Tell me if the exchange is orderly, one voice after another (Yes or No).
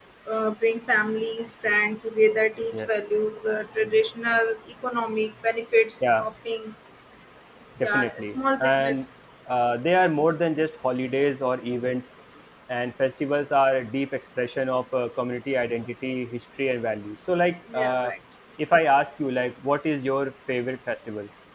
No